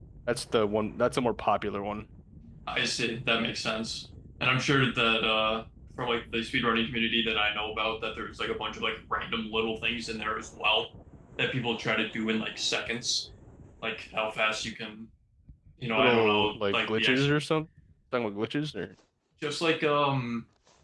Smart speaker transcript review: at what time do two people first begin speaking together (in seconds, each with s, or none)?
16.0 s